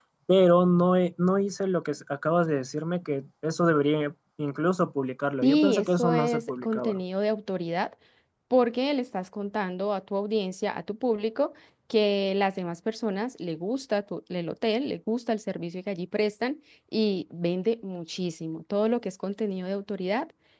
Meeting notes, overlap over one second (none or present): present